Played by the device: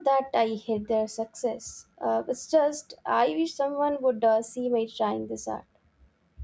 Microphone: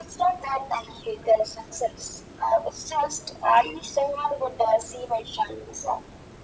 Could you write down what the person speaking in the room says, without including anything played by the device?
none

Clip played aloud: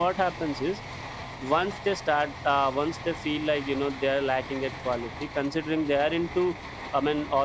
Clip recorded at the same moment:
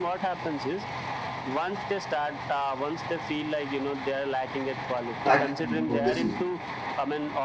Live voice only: Packaging, obviously,

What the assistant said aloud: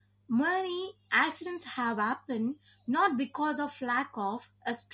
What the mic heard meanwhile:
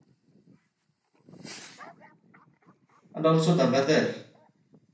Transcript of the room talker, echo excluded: and also the weather

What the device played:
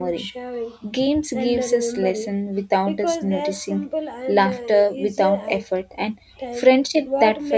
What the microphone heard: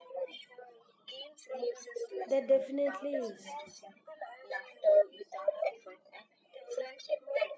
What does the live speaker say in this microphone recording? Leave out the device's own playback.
There definitely is.

